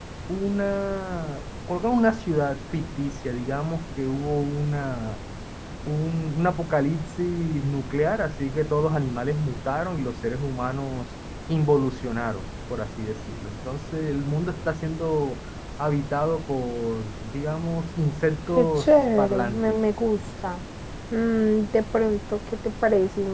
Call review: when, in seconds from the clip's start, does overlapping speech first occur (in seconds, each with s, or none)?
18.5 s